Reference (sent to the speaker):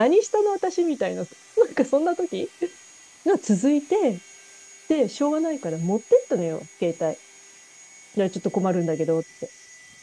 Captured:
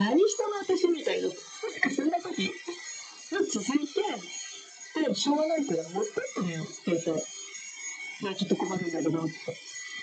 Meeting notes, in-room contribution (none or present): none